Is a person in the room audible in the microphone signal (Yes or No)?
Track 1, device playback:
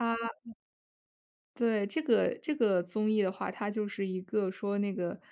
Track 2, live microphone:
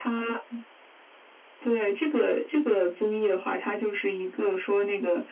No